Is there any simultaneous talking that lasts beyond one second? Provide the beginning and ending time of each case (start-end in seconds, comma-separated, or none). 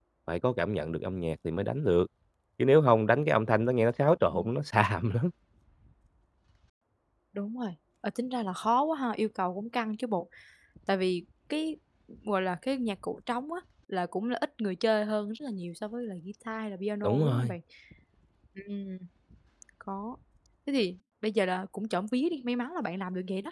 none